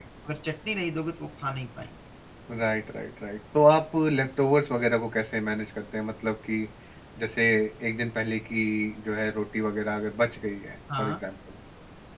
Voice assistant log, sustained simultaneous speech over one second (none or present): none